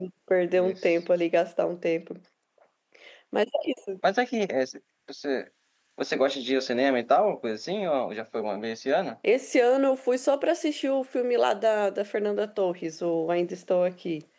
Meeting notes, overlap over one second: none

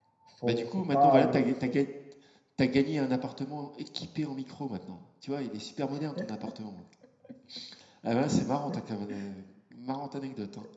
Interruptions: present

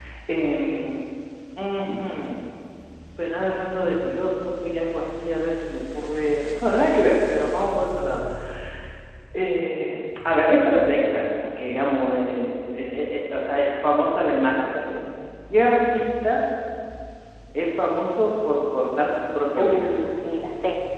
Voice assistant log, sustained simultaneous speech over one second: none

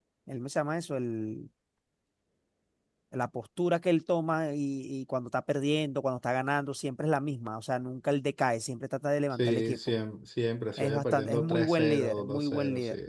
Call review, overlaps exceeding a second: present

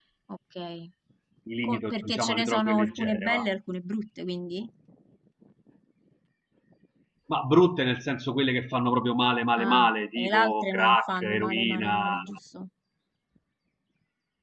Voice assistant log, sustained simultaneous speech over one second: present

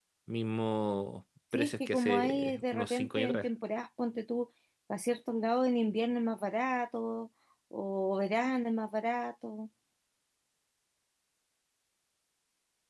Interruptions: present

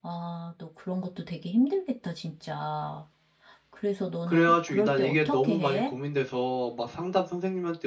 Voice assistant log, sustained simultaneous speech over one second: present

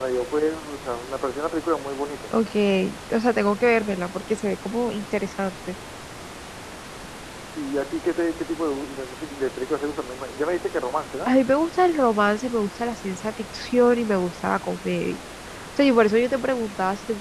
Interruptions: none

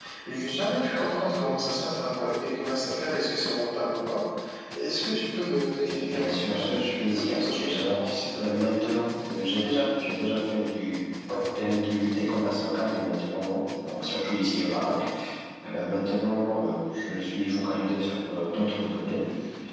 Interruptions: present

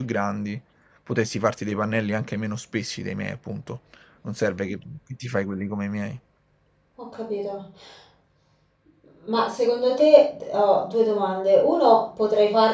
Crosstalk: none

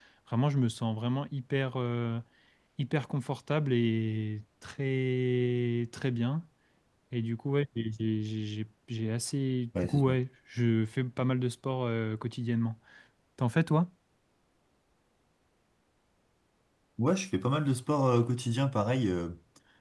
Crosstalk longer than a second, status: none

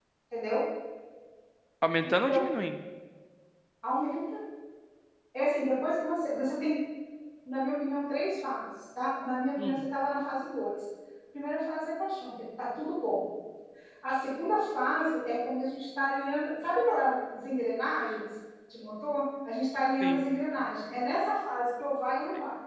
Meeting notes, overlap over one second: none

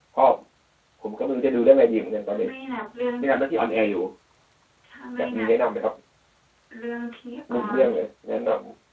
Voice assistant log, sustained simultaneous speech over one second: none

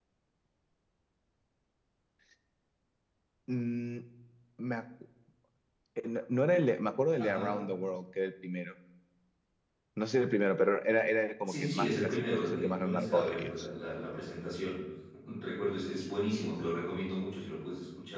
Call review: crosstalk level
present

